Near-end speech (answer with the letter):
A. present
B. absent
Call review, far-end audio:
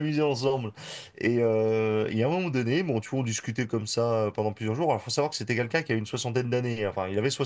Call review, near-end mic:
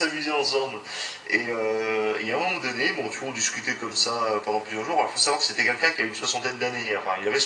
B